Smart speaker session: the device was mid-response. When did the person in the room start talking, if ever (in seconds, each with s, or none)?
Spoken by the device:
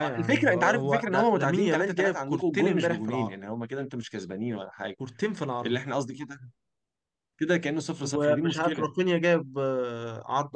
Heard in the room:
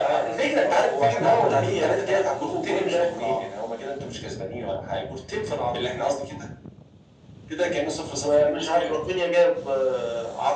1.0 s